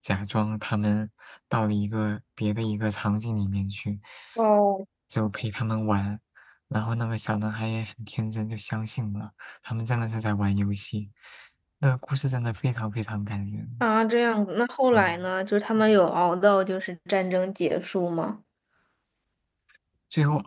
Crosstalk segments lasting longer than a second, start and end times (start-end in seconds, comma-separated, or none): none